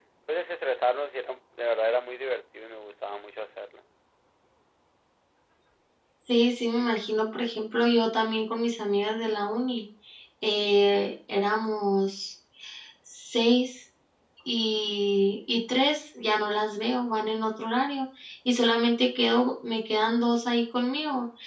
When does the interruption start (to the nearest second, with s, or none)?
none